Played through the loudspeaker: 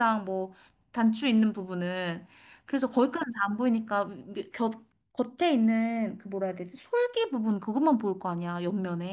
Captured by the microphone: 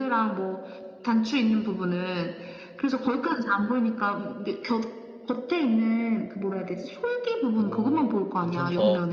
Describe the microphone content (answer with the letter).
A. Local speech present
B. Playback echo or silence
A